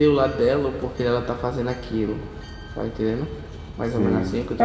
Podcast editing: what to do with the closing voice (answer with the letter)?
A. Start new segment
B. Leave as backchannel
A